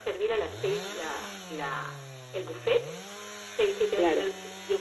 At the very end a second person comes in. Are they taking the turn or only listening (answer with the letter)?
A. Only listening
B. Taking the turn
A